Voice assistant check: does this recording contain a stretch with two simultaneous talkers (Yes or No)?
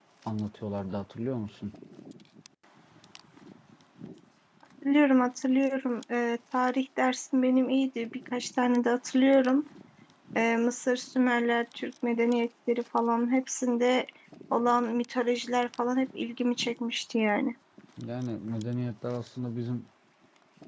No